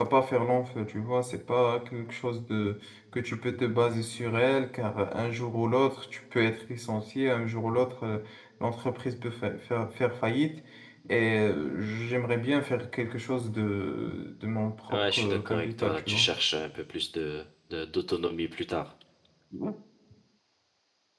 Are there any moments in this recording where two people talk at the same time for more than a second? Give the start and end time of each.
14.9-16.3

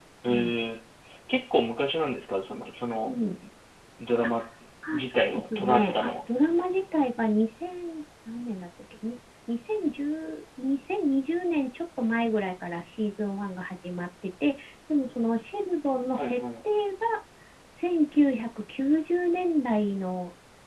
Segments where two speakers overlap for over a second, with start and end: 4.9-6.2

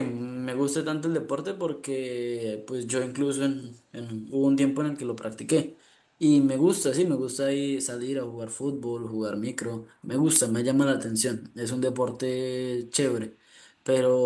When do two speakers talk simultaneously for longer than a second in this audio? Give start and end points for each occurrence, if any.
none

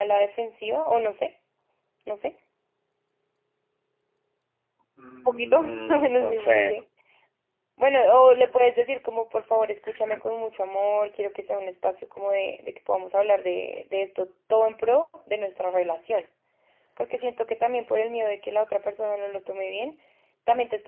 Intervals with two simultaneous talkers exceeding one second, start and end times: 5.2-6.6

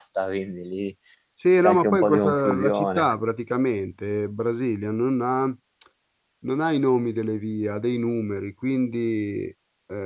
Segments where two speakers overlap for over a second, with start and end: 1.6-3.1

